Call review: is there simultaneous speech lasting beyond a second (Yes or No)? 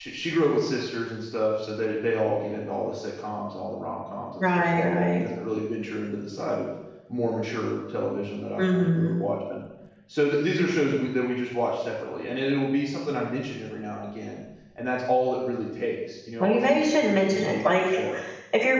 Yes